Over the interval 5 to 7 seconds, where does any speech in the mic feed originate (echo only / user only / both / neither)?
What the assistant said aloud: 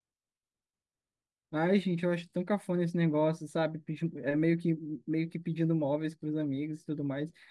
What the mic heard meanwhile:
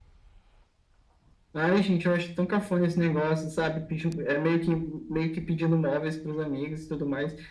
echo only